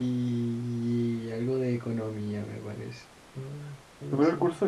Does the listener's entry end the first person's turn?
Yes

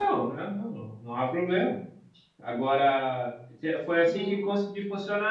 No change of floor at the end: Yes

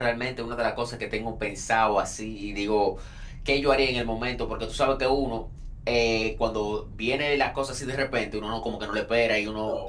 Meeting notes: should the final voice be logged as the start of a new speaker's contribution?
No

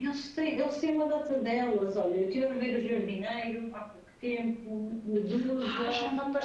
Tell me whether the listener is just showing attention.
No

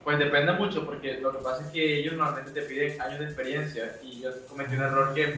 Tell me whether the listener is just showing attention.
Yes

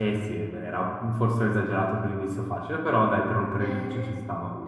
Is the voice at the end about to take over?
Yes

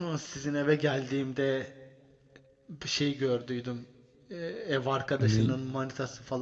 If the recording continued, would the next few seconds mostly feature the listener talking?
No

